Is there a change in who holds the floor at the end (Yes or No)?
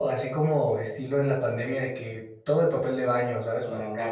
Yes